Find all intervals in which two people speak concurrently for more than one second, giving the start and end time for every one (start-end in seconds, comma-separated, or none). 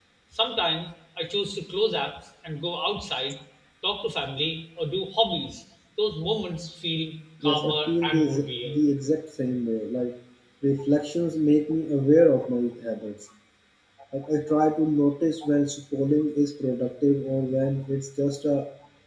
7.4-8.8